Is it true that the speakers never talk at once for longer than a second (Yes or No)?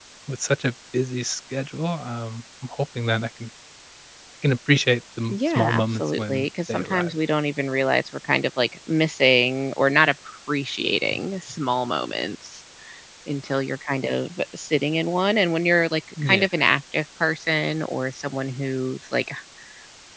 No